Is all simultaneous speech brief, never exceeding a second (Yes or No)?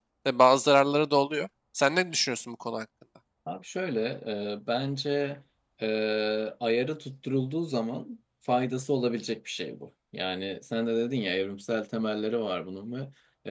Yes